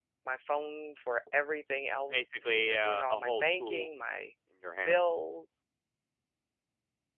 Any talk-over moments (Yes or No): Yes